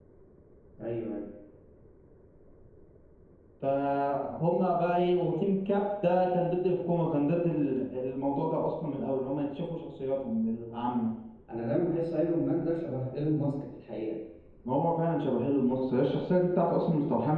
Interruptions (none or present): none